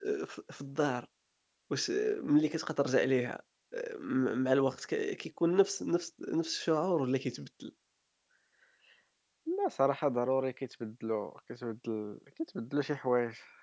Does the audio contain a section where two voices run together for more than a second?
No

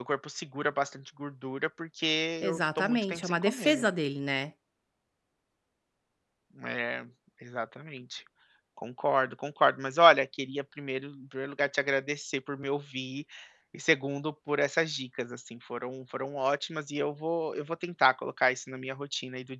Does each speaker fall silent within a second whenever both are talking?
No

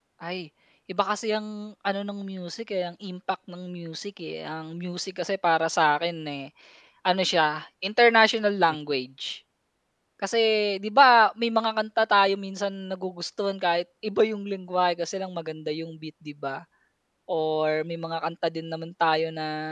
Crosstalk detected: No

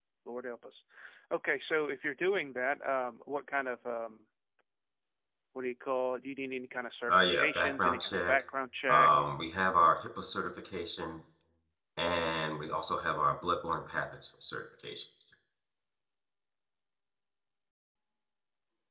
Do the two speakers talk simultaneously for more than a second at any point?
Yes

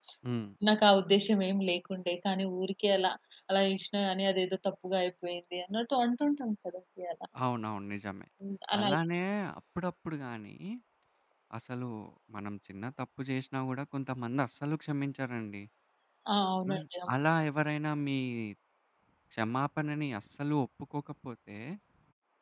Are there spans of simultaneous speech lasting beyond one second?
No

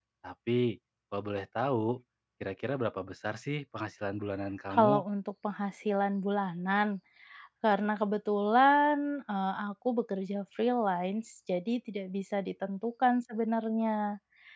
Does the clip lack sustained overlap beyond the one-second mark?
Yes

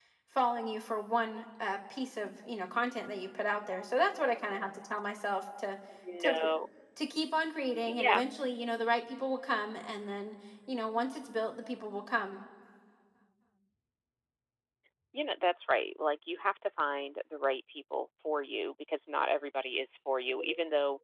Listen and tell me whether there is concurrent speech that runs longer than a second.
No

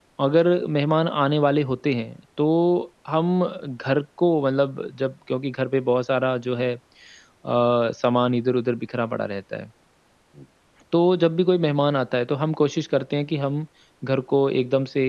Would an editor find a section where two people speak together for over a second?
No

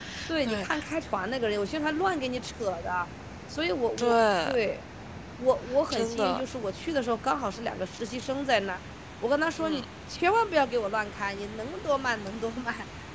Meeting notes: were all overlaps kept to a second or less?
Yes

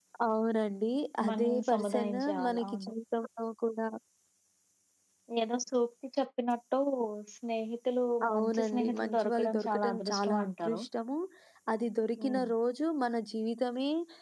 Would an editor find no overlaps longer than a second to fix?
No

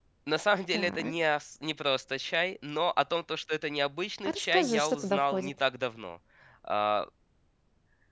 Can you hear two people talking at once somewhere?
Yes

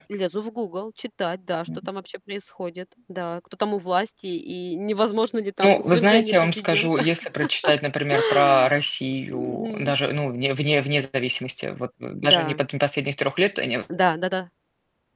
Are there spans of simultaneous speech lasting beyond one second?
Yes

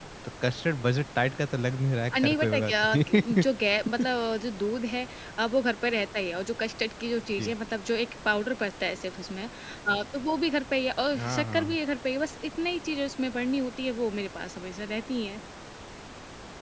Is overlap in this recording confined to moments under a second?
No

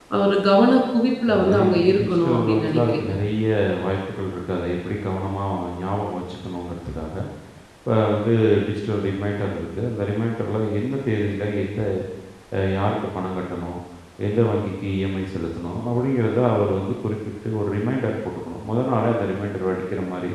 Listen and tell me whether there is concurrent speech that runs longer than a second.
Yes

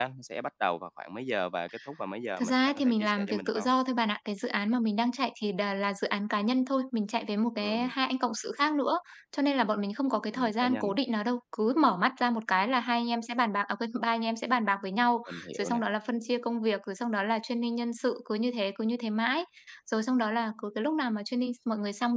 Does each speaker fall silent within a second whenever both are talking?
No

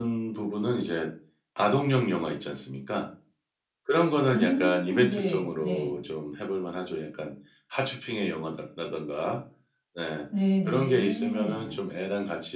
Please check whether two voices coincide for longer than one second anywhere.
Yes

